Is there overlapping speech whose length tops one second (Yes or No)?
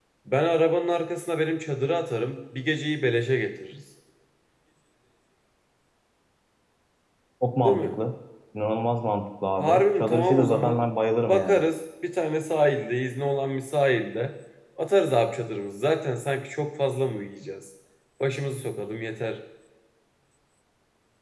Yes